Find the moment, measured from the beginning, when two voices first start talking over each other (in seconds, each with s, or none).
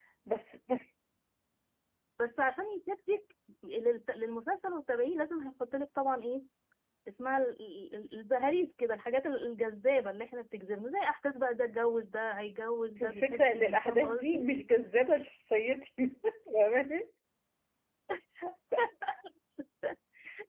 13.0 s